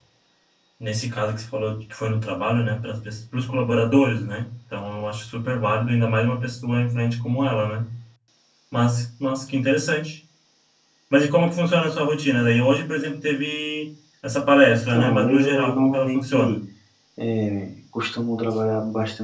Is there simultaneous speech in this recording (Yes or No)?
Yes